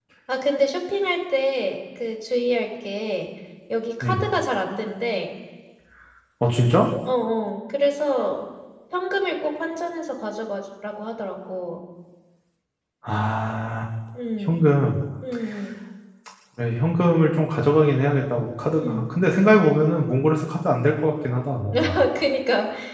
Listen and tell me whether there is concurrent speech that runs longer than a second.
No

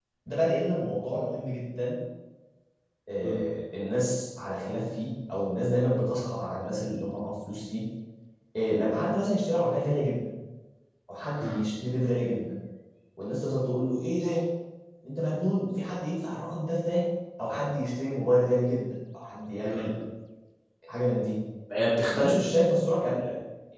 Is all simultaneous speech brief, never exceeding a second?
Yes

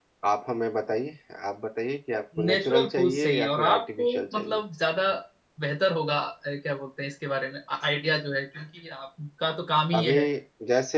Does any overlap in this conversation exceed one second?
Yes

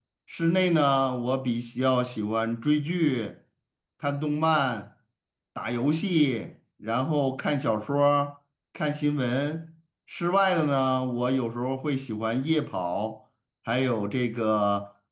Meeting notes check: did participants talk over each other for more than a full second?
No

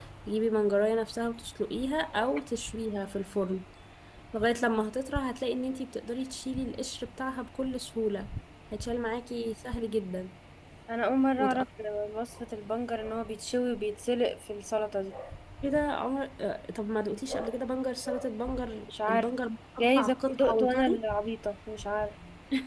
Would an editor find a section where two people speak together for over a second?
Yes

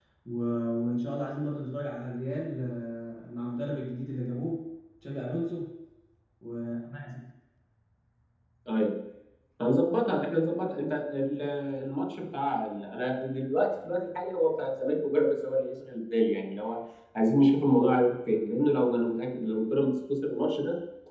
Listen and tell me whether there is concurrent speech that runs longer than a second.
No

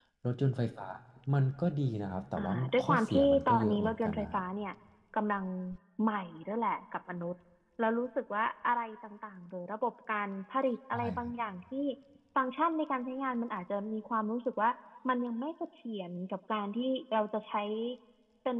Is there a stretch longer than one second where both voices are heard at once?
Yes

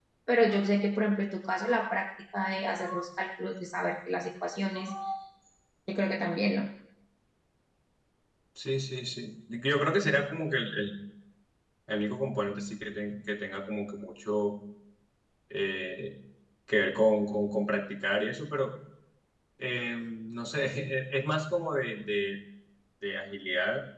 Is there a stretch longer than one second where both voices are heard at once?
No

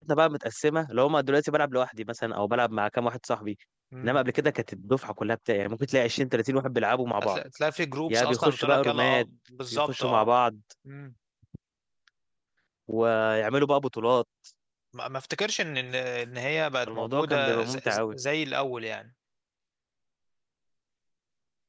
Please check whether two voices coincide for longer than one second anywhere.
Yes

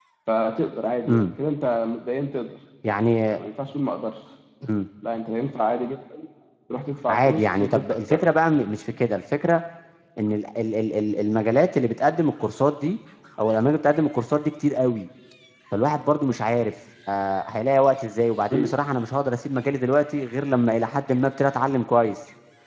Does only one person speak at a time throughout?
No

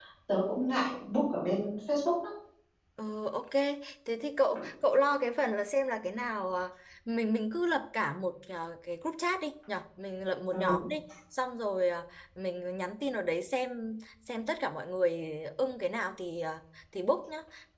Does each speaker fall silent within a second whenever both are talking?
Yes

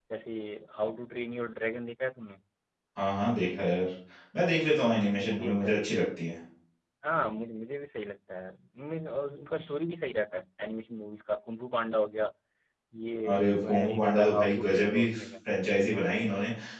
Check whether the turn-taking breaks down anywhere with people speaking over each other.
Yes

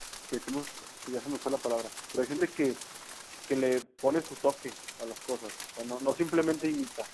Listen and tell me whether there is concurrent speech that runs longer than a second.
No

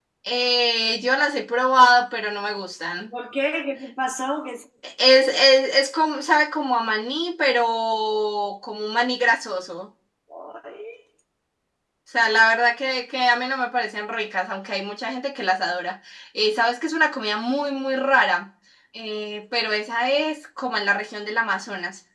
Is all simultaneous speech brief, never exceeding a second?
Yes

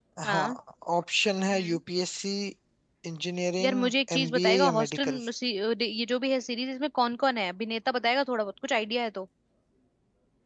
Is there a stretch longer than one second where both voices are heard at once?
Yes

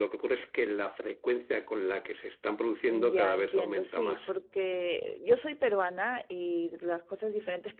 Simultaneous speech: Yes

